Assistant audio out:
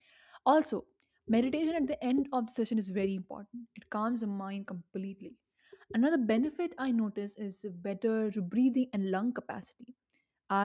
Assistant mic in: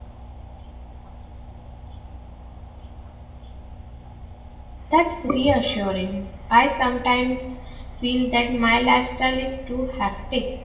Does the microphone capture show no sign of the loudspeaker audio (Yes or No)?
Yes